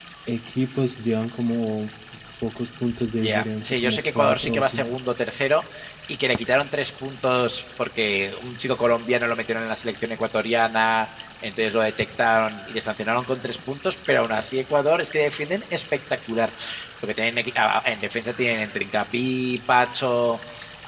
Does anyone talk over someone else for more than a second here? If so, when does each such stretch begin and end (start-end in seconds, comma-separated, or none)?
3.2-5.0